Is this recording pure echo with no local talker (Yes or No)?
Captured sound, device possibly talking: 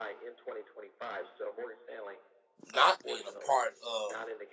No